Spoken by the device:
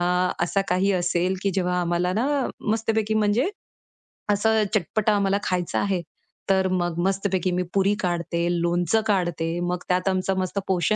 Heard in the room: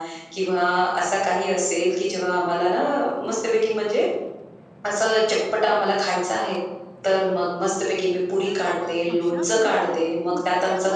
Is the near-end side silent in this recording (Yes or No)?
No